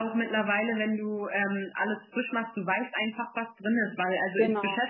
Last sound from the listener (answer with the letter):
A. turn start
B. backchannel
B